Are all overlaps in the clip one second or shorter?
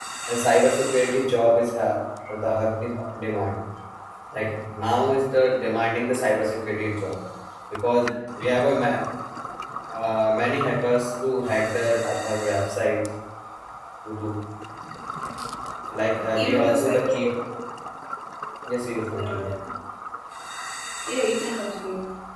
No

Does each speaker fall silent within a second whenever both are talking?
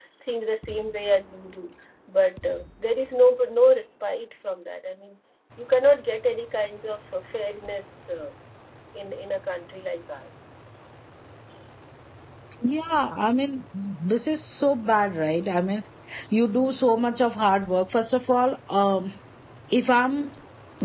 Yes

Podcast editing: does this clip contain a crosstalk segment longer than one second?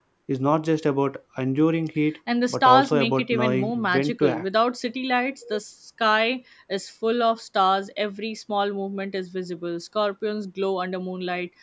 Yes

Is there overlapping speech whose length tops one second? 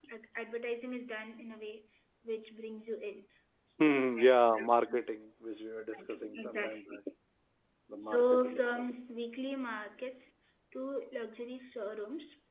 Yes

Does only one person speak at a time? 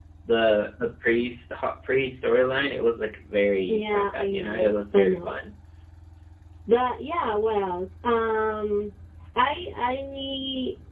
No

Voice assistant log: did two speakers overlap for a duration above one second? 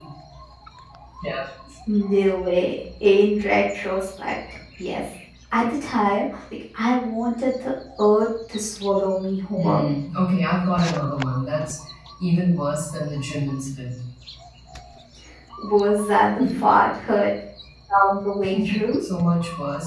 No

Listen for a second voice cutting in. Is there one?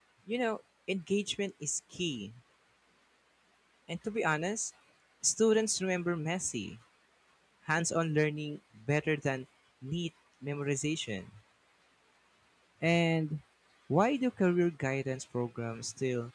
No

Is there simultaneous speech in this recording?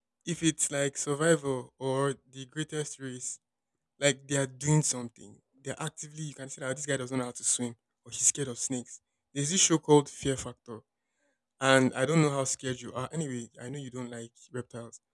No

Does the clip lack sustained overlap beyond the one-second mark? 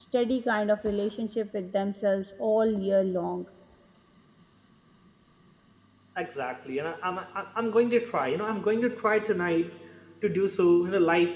Yes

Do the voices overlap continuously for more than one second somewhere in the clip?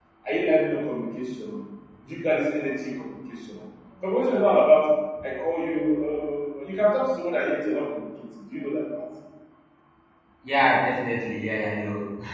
No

